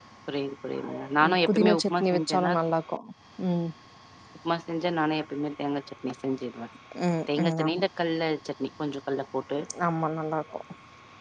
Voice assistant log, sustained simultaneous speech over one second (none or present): present